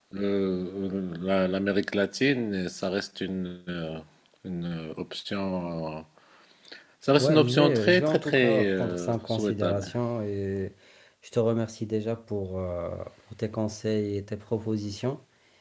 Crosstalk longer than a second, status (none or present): present